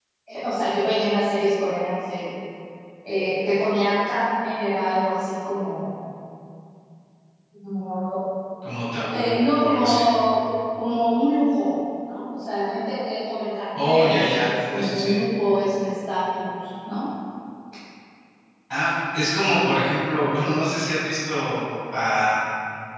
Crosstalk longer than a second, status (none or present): present